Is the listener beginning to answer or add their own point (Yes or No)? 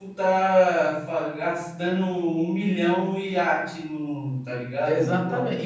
Yes